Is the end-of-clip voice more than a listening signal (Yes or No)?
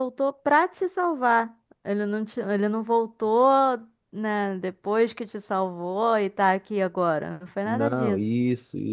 Yes